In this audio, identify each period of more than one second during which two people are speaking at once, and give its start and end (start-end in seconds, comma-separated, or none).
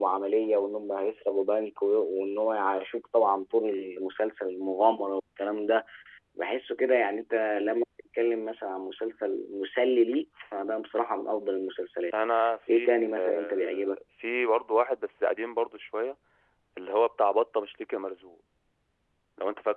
12.7-14.0